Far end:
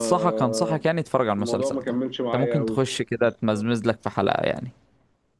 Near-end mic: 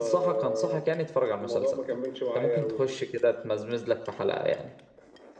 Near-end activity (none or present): none